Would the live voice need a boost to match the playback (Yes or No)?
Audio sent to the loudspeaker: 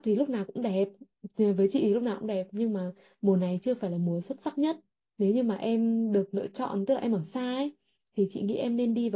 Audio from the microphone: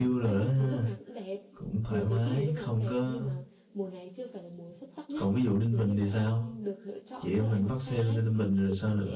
No